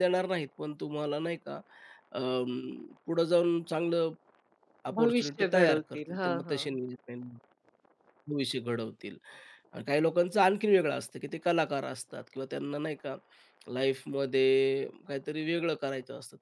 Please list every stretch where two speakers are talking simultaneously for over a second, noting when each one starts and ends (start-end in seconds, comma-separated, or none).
4.9-6.8